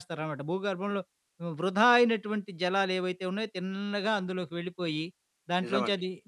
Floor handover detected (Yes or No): No